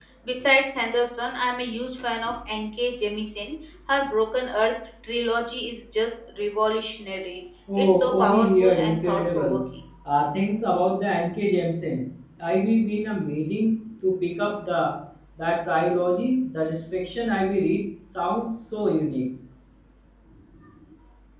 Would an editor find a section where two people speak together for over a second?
Yes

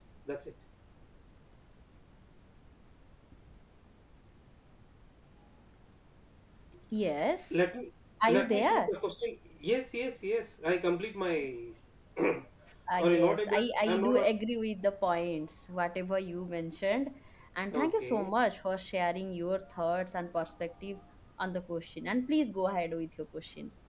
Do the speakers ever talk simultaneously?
Yes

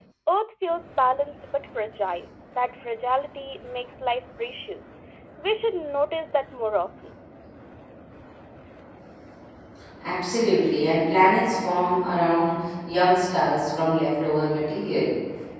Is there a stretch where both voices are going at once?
No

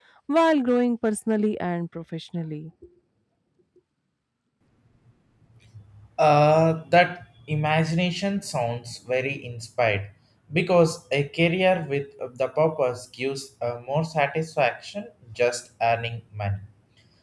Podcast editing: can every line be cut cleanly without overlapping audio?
Yes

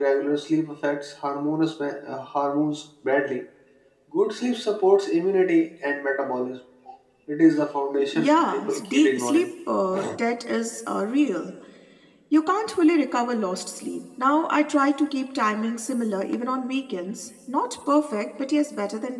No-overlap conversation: No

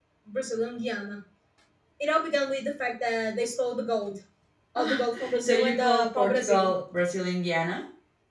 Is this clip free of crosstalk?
No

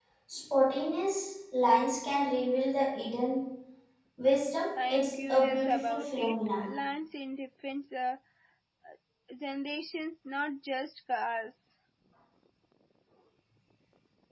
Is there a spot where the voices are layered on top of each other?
Yes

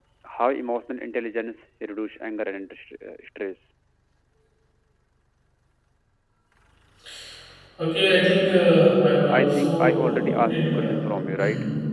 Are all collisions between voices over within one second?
No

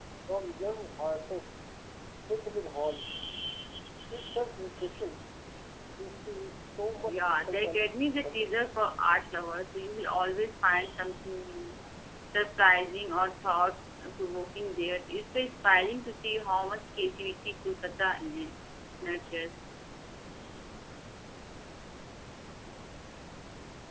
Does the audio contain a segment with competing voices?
Yes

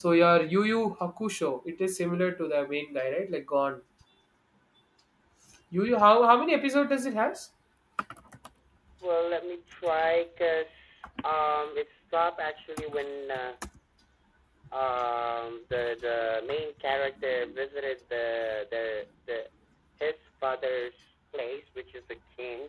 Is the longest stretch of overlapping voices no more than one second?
Yes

